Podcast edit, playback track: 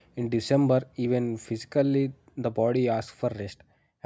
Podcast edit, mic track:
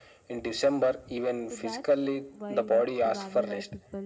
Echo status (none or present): present